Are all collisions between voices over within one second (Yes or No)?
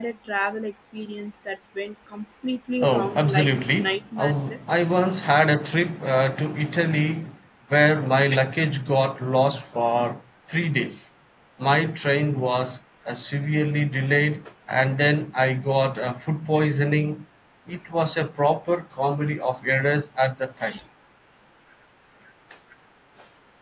No